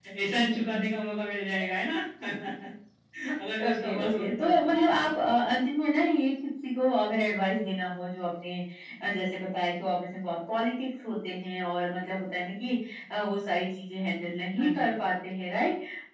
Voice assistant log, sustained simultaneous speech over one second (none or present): present